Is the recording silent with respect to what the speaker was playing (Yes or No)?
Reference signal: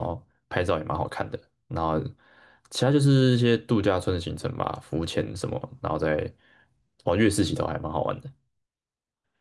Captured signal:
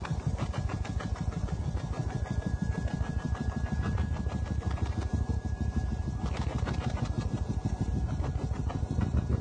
Yes